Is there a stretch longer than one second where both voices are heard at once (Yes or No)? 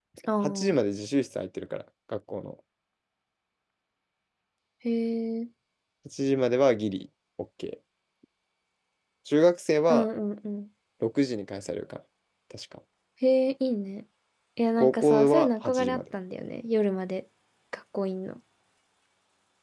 Yes